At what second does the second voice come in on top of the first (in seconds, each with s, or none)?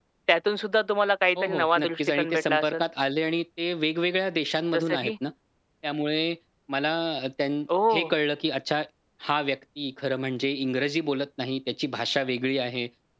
1.4 s